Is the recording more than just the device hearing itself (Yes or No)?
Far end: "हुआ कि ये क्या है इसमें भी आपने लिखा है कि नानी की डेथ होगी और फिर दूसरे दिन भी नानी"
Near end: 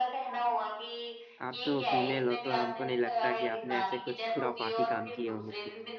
Yes